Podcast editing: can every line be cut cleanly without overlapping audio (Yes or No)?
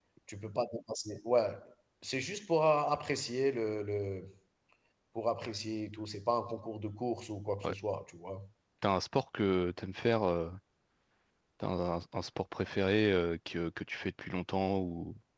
Yes